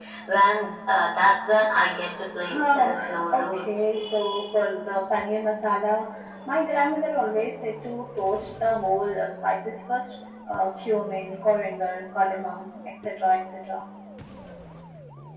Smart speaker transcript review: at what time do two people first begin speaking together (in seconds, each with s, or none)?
2.4 s